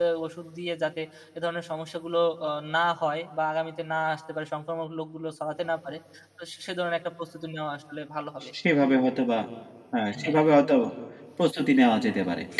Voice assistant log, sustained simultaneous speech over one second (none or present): none